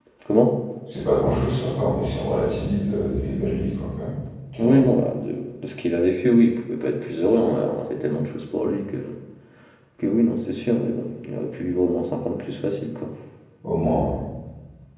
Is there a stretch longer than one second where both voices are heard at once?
No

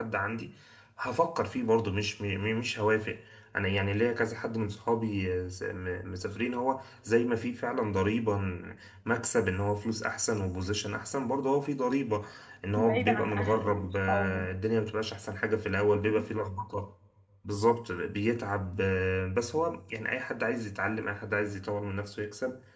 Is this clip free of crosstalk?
No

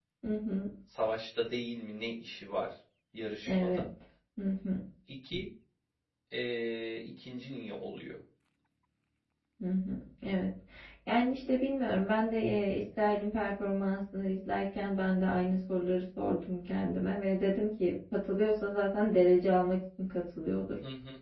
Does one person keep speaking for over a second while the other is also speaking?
No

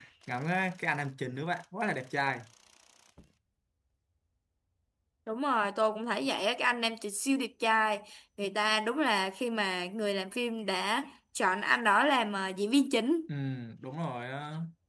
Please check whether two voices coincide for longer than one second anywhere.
No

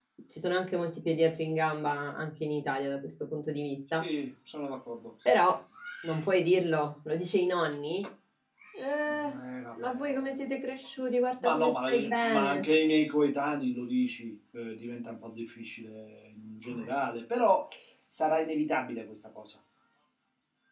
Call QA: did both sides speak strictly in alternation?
No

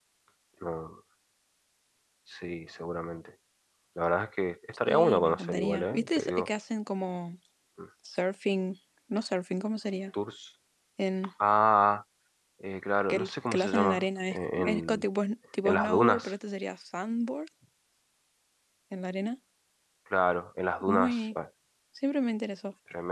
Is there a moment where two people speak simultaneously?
Yes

